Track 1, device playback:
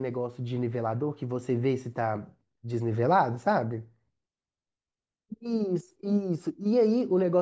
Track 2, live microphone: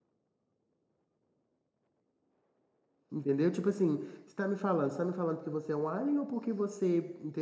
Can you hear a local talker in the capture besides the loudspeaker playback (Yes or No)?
Yes